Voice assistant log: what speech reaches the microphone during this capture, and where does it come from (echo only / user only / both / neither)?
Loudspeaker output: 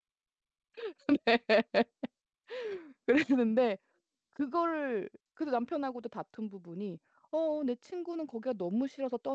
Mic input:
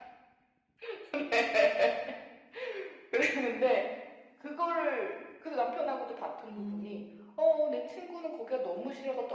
both